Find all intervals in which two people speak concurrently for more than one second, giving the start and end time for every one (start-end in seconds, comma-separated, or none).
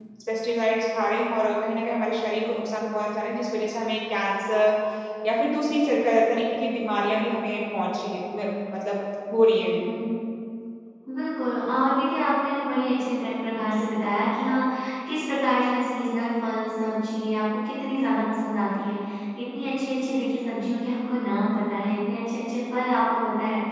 none